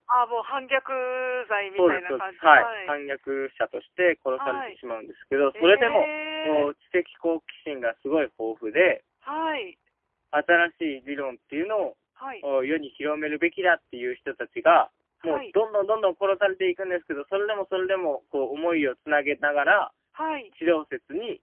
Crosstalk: present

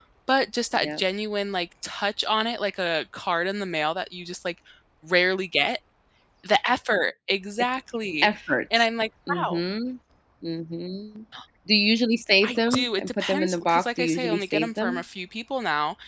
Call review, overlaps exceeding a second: present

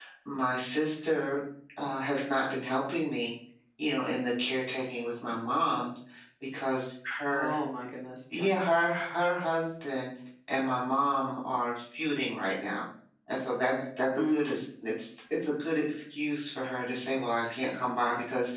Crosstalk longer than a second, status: none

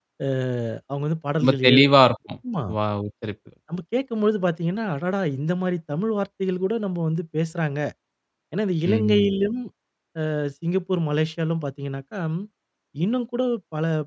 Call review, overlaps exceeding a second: none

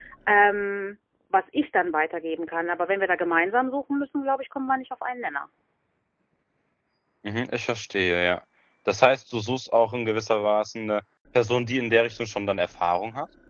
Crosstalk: none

